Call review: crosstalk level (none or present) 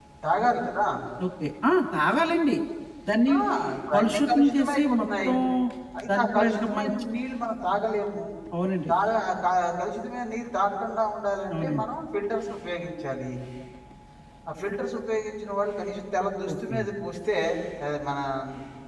present